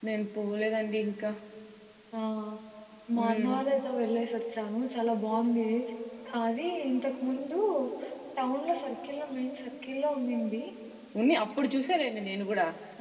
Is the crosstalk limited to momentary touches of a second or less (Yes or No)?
Yes